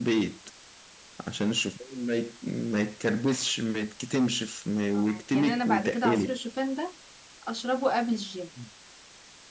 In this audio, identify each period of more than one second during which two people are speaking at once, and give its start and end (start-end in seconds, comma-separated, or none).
5.0-6.4